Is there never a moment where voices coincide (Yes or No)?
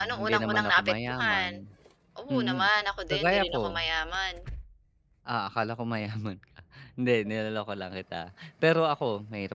No